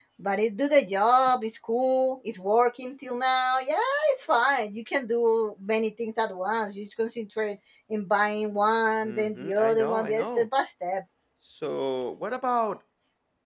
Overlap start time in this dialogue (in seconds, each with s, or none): 9.0 s